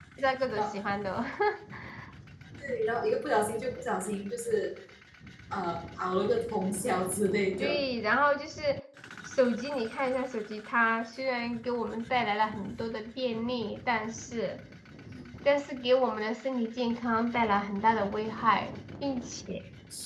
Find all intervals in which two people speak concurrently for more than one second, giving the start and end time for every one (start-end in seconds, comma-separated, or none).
none